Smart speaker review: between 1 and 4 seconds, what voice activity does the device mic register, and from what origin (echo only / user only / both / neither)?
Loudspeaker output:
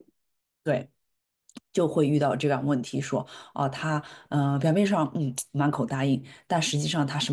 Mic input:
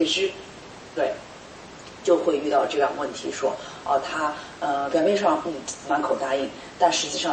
echo only